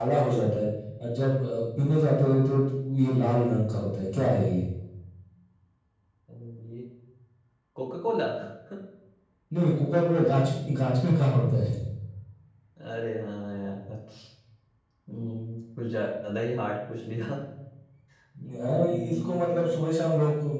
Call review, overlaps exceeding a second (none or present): present